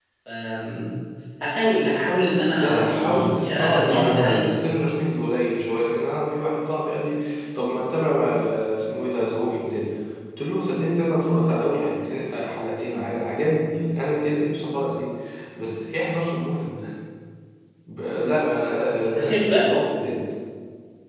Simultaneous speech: Yes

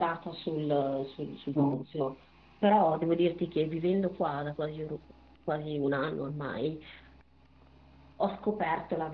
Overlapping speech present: No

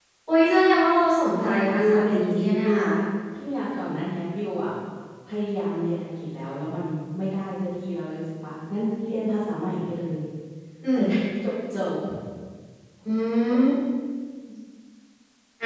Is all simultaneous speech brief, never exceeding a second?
No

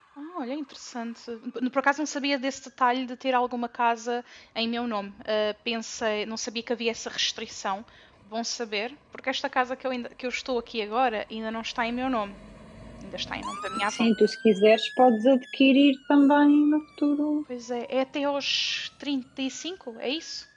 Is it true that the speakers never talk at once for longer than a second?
Yes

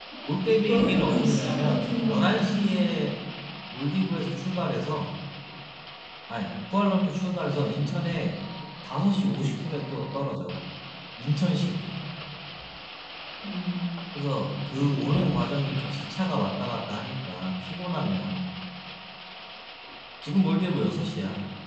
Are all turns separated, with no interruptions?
No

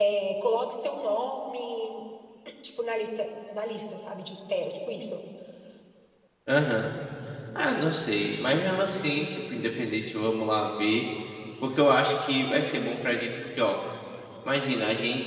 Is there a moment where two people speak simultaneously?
No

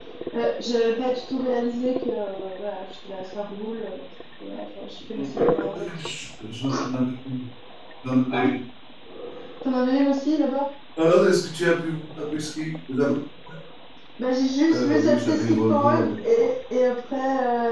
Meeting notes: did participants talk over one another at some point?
Yes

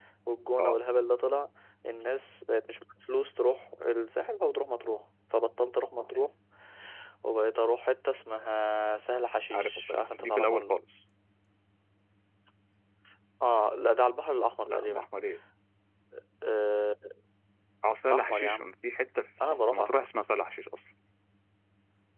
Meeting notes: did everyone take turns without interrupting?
No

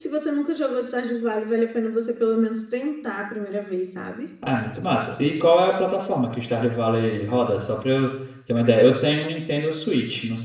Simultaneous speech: No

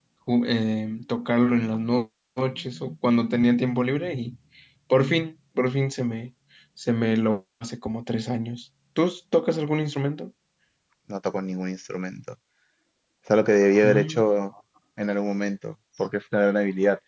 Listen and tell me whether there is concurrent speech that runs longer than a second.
No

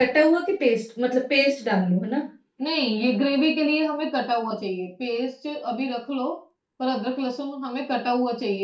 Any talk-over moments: No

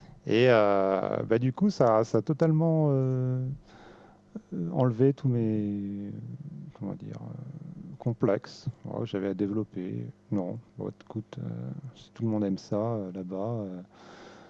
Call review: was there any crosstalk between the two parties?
No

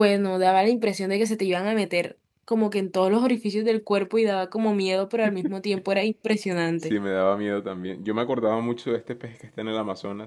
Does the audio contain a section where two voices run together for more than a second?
No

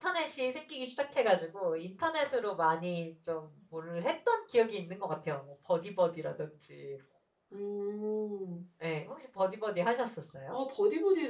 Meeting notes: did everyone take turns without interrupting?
Yes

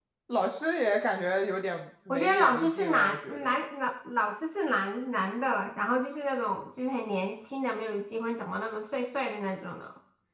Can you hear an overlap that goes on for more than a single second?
Yes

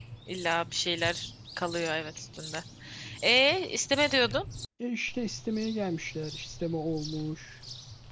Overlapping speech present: No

